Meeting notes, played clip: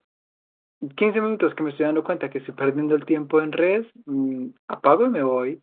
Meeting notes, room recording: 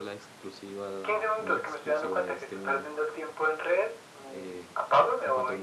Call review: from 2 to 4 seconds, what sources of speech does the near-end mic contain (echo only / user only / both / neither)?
both